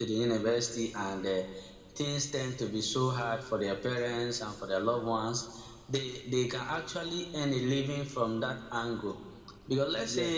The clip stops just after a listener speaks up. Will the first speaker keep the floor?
Yes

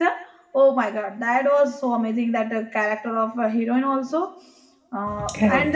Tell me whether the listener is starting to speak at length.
No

